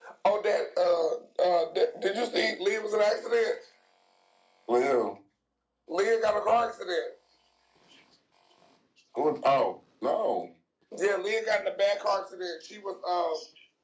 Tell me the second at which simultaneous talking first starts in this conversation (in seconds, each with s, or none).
none